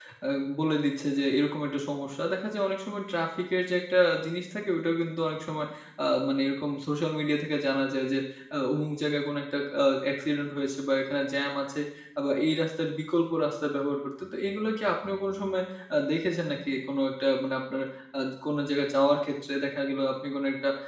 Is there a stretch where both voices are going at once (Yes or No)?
No